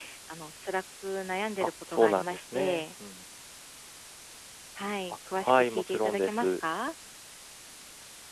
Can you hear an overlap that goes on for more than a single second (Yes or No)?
Yes